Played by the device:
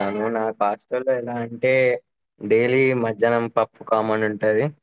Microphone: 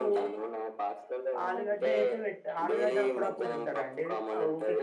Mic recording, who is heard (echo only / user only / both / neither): both